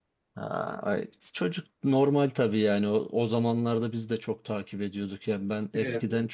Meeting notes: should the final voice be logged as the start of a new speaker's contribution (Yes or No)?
No